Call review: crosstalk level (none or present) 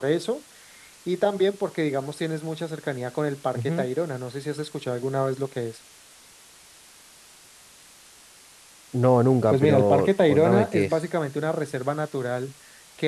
present